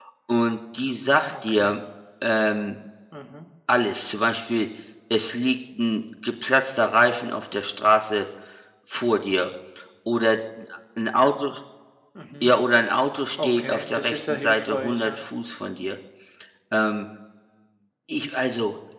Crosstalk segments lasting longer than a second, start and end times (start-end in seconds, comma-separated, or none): 13.4-15.2